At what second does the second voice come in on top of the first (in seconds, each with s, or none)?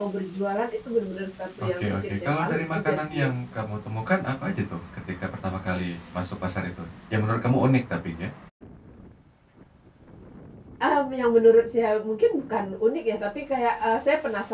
1.6 s